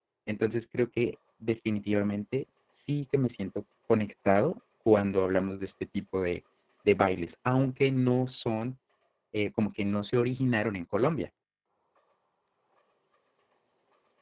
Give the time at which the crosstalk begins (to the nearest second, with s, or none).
none